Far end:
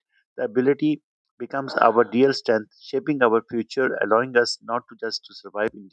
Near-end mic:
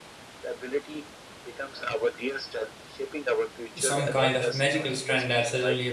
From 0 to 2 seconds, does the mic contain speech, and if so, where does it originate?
echo only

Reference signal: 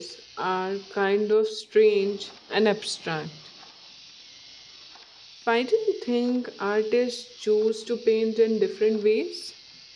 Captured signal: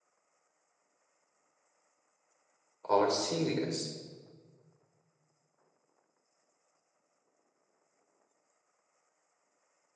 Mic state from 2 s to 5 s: user only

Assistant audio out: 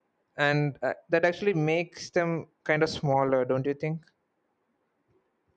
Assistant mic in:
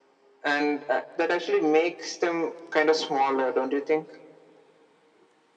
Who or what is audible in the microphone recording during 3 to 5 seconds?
echo only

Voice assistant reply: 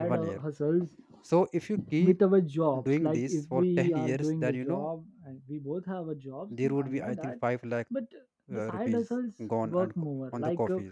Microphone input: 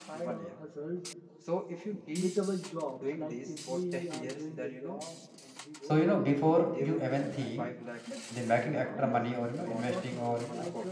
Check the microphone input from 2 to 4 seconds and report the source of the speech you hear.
echo only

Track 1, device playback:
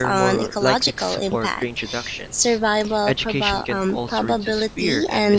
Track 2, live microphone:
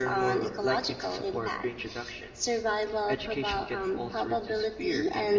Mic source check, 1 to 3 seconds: echo only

